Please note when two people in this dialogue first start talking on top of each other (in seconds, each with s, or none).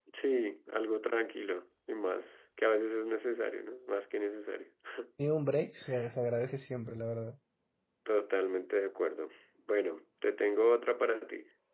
none